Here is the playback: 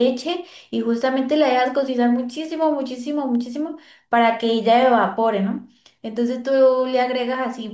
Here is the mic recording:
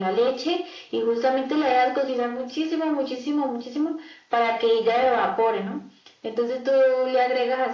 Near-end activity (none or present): none